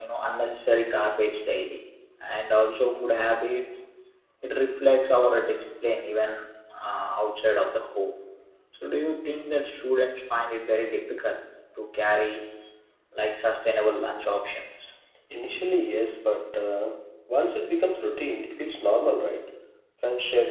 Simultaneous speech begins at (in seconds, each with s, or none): none